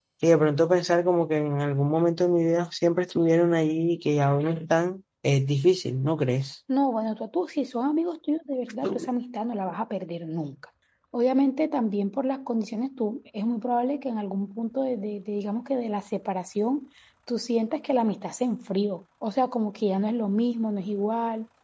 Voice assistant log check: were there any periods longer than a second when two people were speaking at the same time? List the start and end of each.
none

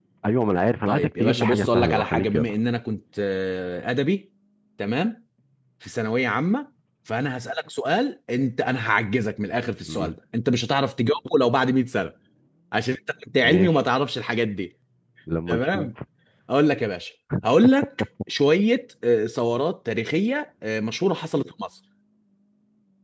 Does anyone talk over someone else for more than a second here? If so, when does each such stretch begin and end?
0.9-2.5

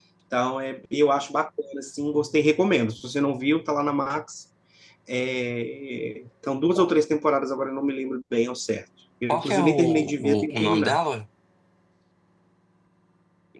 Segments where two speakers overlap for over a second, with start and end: 9.3-11.0

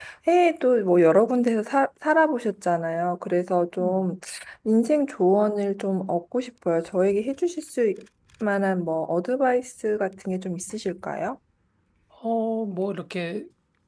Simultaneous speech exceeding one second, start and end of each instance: none

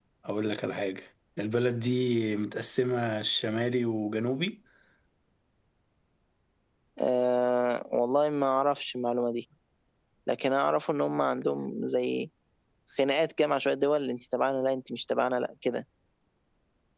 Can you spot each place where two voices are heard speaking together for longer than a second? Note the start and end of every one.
none

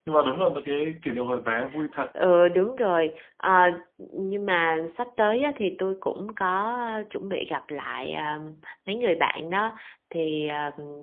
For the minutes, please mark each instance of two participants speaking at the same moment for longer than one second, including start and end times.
none

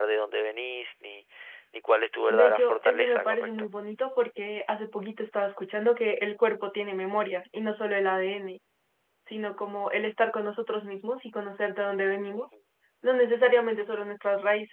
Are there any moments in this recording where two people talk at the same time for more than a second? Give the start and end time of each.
2.3-3.7

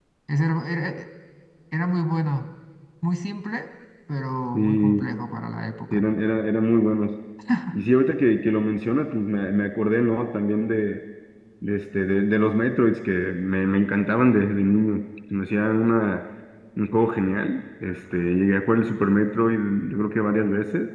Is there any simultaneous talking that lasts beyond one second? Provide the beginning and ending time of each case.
none

